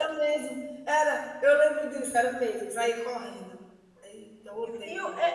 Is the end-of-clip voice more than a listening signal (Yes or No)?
Yes